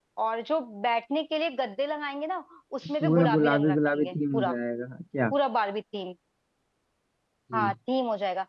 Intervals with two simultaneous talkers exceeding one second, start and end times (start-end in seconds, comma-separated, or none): 3.0-4.5